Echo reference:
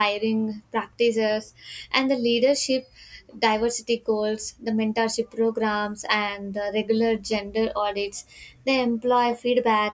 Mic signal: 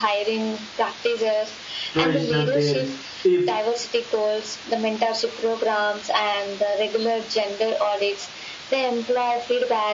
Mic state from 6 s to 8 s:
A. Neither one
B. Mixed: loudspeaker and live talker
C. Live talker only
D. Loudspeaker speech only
D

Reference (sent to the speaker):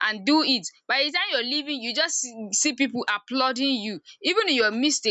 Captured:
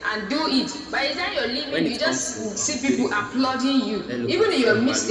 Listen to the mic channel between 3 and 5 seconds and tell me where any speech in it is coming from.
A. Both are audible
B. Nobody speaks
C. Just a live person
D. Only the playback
A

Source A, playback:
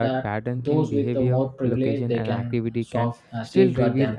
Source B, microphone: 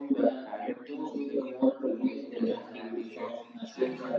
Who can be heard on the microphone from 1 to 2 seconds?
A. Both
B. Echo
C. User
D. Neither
B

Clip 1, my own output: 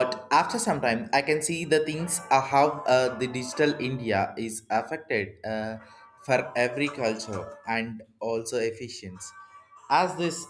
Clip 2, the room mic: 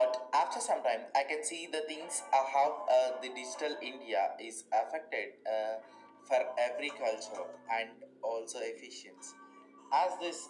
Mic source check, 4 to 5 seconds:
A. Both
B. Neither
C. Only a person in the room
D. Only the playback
D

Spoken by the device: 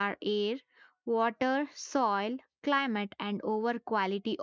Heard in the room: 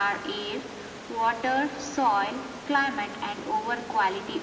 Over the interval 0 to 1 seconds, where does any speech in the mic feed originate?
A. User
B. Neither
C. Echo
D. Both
C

